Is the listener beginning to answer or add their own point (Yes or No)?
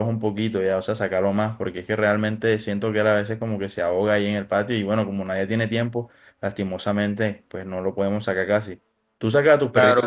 Yes